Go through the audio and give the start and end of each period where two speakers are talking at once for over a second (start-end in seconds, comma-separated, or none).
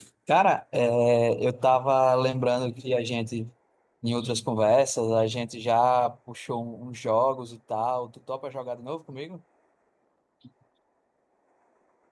none